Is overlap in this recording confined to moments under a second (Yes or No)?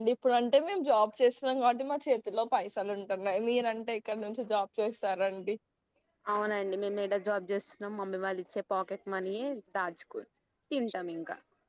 Yes